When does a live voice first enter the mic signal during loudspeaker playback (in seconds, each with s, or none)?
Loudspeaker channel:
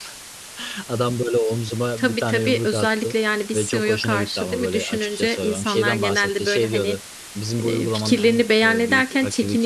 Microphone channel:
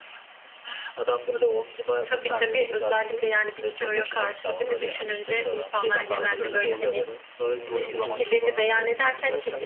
6.1 s